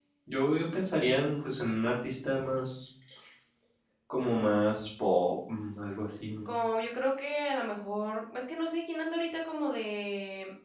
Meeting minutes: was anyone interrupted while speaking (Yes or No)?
No